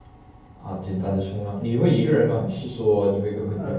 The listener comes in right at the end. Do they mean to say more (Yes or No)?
Yes